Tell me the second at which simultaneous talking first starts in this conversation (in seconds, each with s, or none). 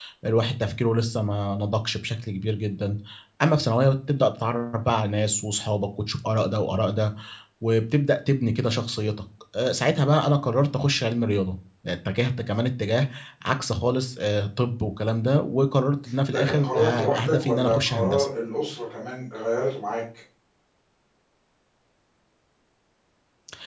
16.3 s